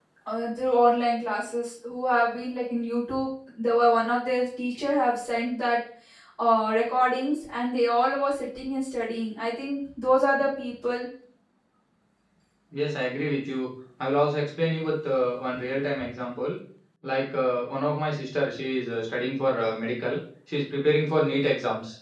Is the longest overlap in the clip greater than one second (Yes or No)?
No